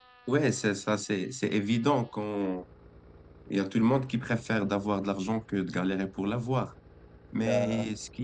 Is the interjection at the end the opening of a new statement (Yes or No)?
No